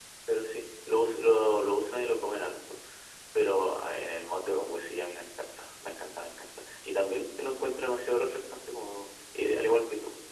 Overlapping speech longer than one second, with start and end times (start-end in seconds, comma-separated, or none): none